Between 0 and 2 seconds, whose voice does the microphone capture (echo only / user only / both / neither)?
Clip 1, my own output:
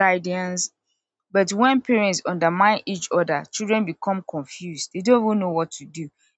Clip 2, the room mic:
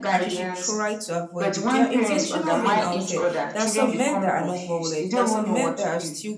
both